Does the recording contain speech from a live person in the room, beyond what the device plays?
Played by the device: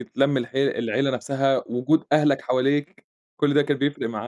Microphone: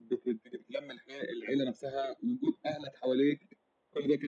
No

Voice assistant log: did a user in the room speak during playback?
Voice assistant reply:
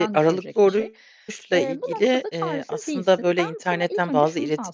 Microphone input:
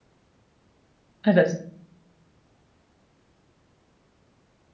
Yes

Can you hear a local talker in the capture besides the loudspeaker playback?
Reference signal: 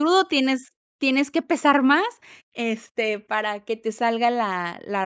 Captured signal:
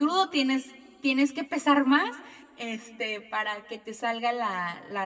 No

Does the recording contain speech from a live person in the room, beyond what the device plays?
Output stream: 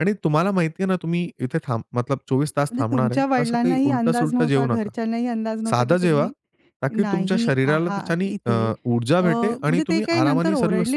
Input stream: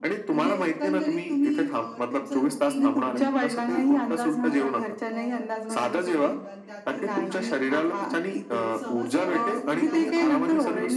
Yes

